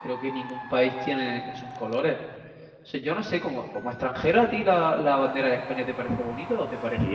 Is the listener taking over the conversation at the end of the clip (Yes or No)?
Yes